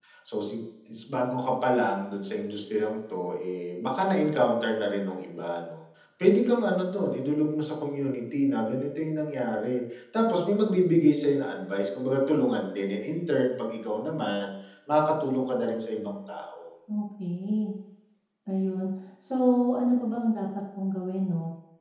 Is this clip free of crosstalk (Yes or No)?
Yes